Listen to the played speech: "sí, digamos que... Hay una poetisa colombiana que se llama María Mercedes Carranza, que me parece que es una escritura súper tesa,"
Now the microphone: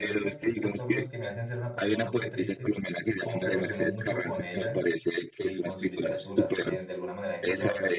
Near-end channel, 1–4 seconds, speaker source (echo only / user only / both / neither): both